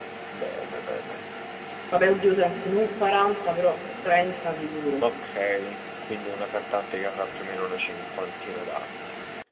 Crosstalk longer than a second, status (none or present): none